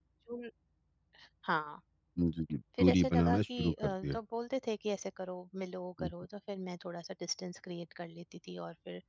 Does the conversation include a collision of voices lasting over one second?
Yes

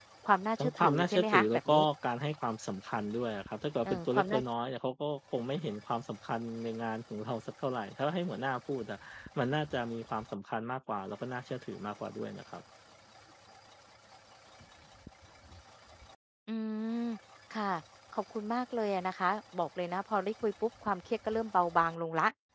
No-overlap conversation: No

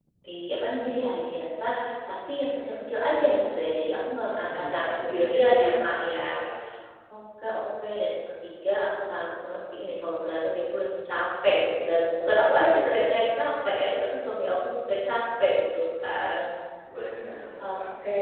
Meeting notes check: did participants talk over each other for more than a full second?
Yes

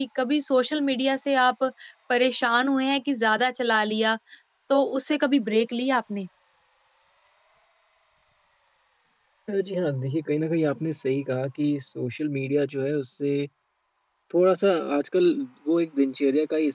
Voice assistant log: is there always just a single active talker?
Yes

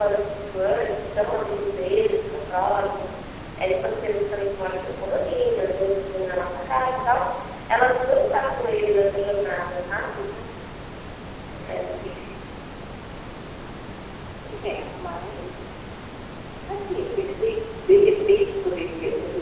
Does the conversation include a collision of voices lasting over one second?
No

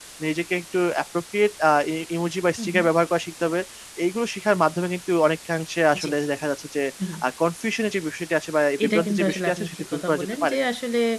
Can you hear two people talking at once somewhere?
Yes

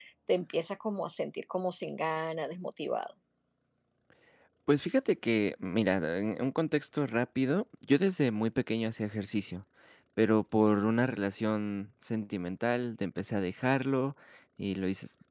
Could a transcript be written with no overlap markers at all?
Yes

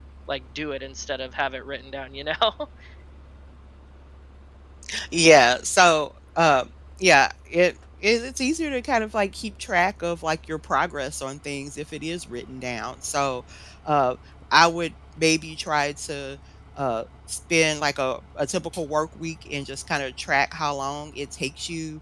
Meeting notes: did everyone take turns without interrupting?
Yes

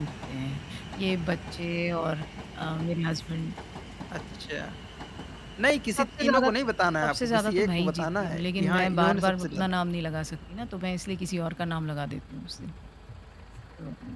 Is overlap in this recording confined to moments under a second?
No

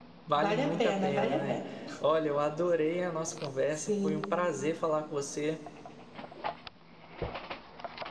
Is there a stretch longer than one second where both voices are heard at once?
Yes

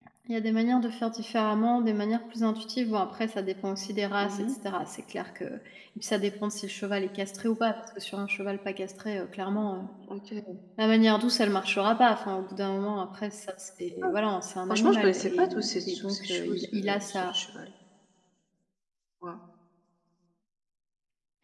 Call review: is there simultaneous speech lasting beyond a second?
Yes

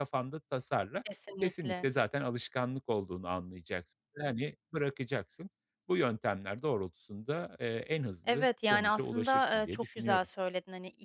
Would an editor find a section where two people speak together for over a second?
Yes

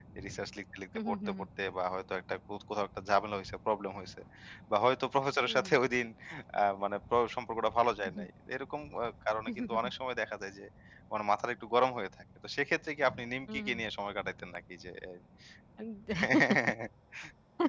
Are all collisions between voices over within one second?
Yes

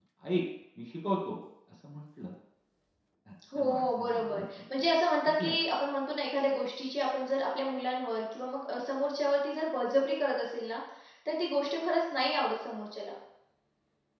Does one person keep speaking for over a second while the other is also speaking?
Yes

